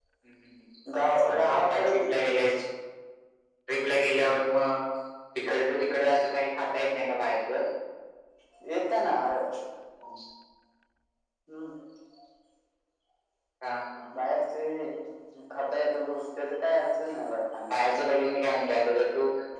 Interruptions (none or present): present